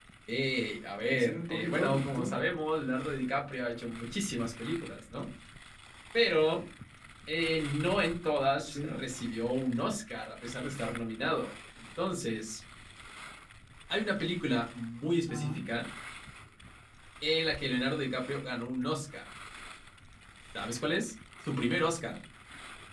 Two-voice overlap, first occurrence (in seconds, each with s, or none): 1.0 s